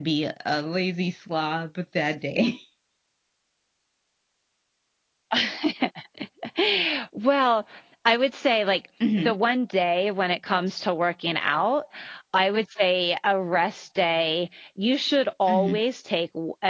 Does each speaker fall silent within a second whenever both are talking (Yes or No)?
Yes